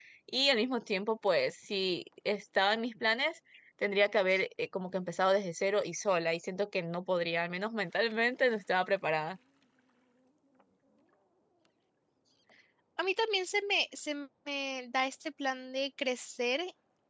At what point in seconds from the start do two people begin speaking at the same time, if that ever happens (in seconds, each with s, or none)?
none